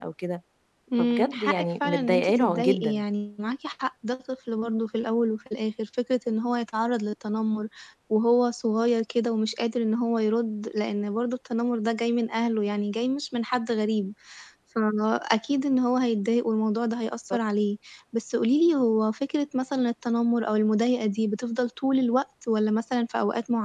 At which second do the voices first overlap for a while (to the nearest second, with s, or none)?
1 s